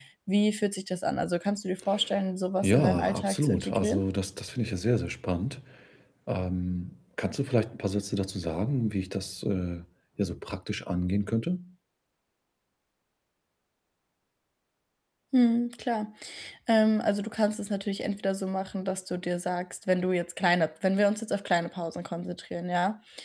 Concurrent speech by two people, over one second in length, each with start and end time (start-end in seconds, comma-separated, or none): 2.6-4.0